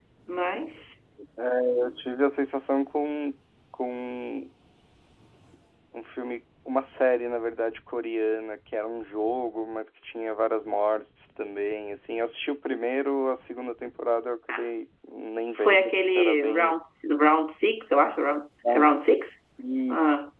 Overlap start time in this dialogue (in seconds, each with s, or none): 15.6 s